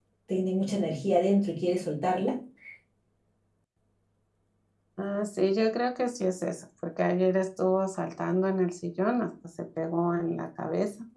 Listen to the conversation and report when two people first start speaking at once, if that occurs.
none

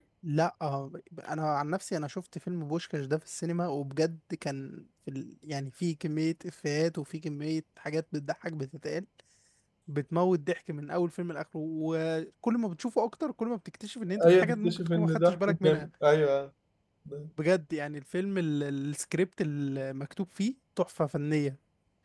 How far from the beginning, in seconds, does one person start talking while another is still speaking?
14.2 s

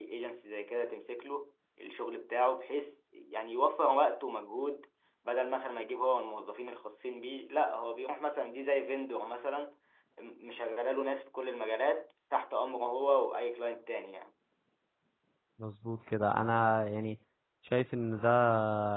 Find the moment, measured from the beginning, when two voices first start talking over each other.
none

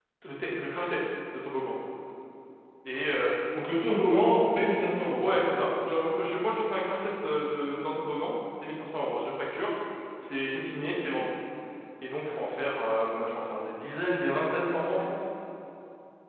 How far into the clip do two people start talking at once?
none

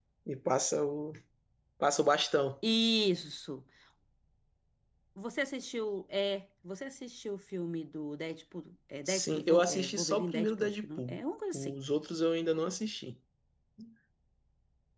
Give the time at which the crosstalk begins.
9.1 s

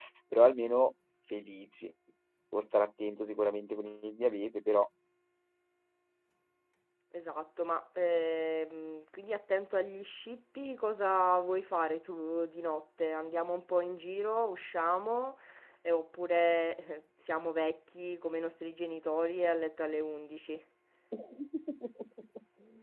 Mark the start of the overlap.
none

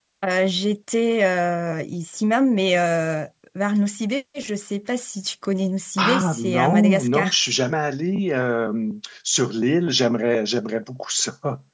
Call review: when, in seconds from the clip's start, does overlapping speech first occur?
6.0 s

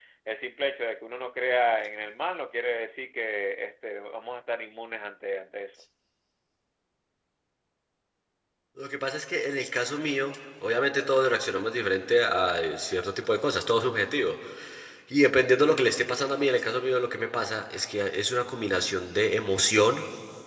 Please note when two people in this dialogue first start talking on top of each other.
none

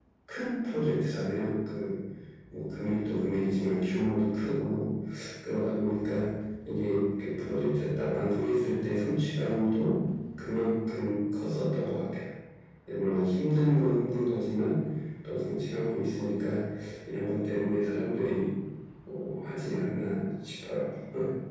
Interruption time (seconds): none

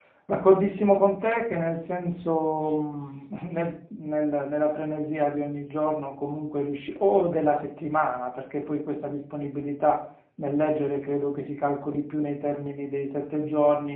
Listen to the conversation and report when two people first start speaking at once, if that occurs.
none

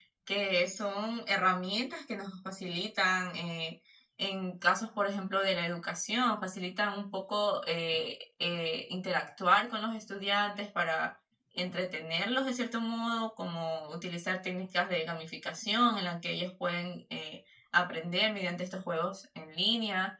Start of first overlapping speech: none

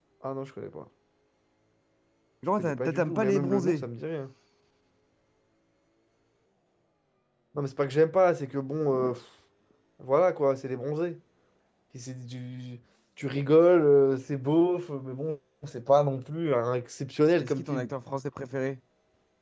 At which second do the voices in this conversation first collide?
2.6 s

